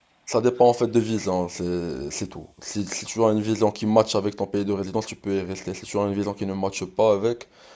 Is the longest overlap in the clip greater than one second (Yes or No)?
No